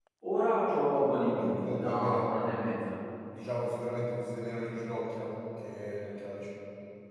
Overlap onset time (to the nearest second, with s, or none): 1 s